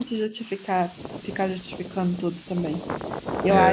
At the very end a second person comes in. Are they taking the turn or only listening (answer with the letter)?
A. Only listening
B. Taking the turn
A